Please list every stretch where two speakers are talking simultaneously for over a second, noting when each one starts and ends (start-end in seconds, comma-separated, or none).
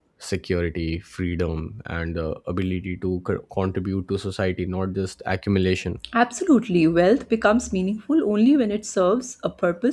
none